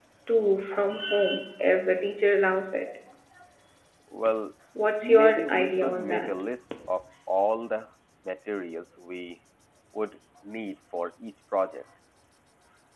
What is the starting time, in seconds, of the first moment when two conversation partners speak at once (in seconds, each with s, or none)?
5.0 s